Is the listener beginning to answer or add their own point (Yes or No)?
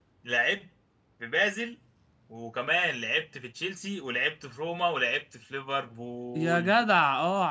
Yes